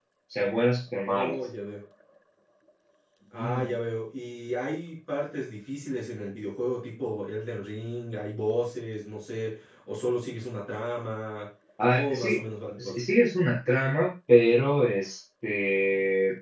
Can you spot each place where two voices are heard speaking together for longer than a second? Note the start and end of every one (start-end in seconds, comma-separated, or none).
none